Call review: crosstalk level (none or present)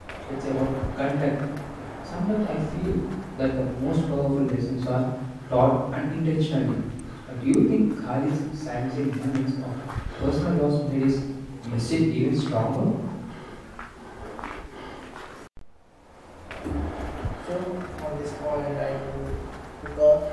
none